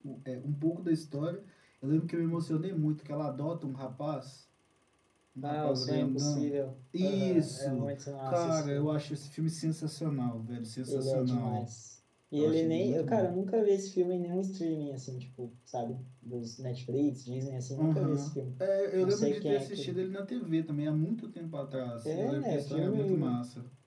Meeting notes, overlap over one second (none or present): present